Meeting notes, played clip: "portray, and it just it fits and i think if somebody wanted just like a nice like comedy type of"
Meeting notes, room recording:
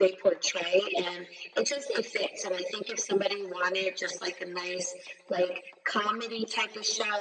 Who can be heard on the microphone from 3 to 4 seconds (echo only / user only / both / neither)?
echo only